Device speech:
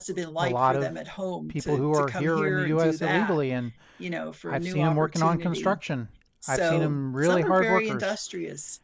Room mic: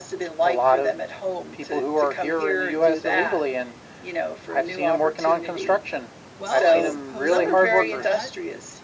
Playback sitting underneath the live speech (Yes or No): No